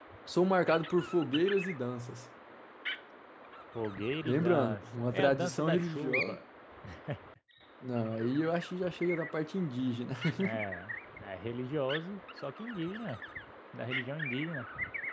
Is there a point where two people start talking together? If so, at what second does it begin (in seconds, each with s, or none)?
4.2 s